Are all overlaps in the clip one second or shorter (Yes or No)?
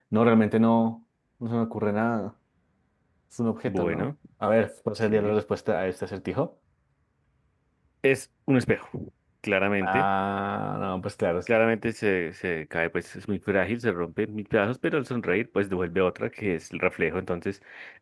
Yes